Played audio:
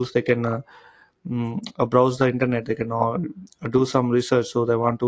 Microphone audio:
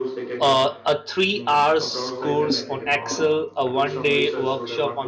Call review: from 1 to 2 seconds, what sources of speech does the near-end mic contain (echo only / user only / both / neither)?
both